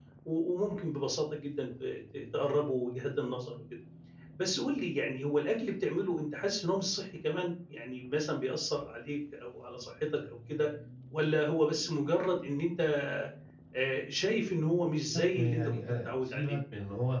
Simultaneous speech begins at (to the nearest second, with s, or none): 15 s